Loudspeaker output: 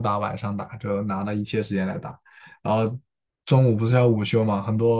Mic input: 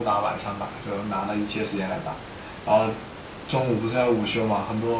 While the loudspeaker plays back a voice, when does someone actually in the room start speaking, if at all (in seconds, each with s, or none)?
none